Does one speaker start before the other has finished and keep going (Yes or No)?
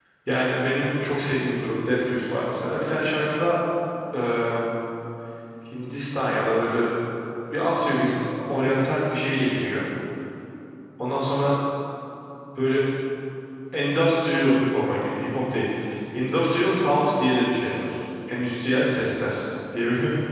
No